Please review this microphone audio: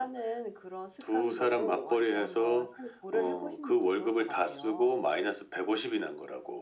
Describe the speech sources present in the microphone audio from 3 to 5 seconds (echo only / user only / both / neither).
echo only